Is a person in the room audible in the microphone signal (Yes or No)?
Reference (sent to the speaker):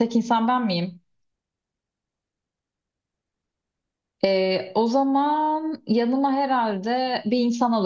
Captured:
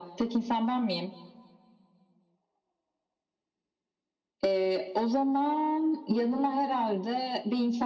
No